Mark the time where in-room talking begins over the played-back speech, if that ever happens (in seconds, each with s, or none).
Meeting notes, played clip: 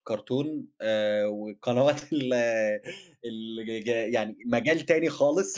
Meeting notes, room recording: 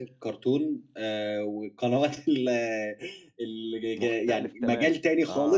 3.9 s